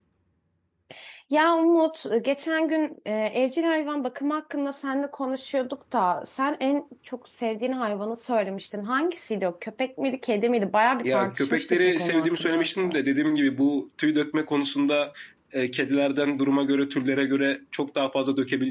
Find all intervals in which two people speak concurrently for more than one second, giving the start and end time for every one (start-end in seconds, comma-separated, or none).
11.0-13.0